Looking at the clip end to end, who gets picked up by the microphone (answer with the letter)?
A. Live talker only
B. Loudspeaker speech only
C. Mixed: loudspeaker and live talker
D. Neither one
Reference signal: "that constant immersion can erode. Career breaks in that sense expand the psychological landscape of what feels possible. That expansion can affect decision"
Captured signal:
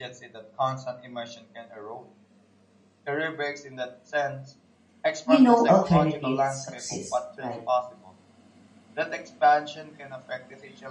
C